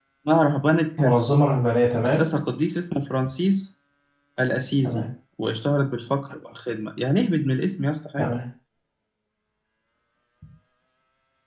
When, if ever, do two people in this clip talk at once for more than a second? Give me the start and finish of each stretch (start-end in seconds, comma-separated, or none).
none